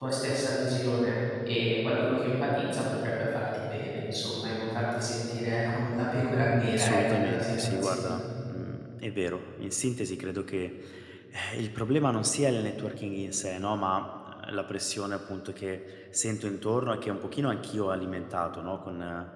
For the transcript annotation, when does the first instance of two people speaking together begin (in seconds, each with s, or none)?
6.8 s